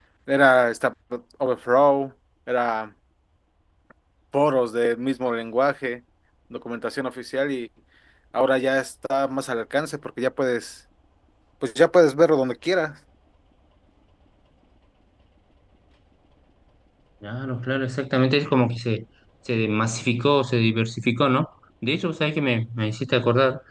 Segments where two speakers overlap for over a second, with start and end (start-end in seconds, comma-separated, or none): none